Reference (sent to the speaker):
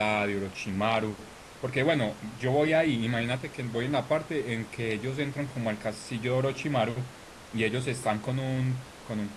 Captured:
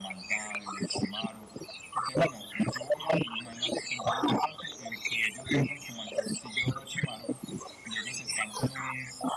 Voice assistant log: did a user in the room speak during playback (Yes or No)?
No